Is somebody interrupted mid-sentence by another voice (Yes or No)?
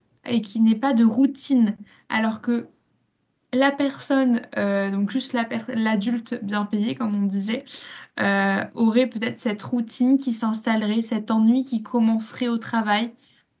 No